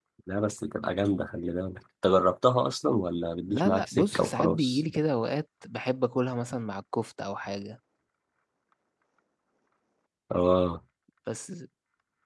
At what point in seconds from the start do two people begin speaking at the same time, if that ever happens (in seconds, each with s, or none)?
3.5 s